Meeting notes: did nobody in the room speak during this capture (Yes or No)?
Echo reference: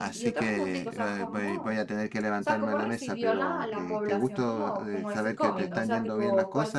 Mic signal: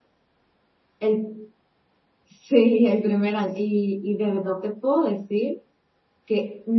No